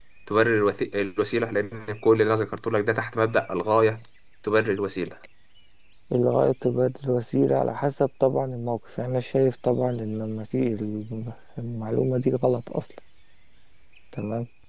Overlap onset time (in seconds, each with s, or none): none